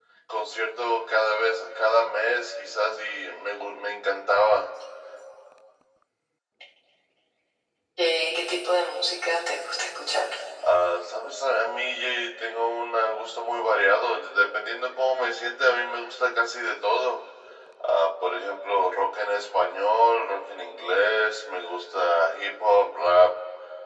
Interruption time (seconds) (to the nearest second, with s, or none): none